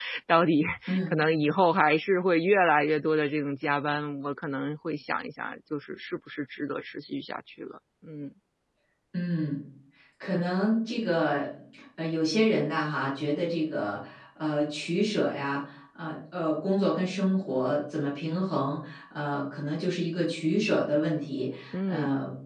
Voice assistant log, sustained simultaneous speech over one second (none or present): none